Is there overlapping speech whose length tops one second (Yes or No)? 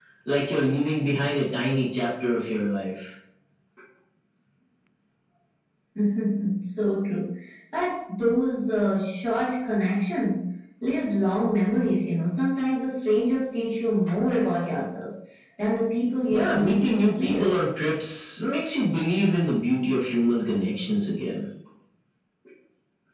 Yes